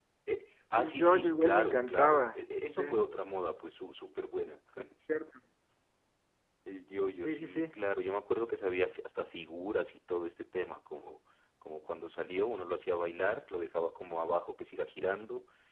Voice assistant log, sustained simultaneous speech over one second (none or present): present